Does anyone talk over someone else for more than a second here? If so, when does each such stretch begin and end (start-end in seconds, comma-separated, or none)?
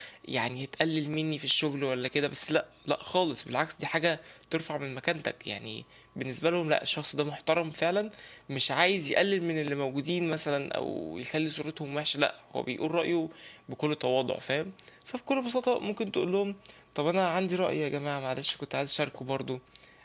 none